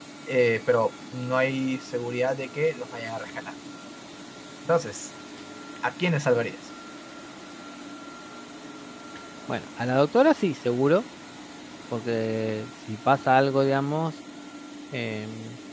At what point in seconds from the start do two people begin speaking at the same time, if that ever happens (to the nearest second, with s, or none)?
none